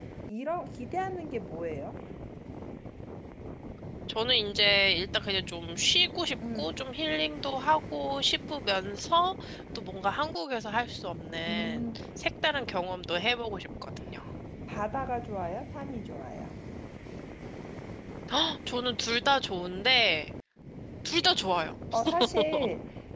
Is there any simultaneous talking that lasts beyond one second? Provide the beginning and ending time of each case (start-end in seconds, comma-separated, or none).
none